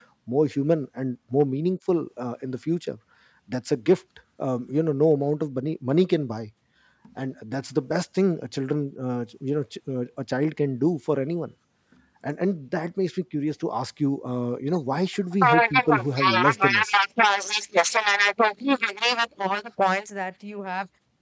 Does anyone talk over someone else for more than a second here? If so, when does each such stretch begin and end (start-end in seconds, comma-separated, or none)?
15.4-17.0